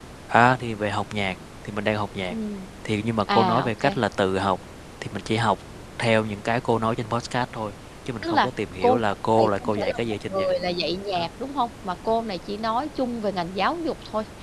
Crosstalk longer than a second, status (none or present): present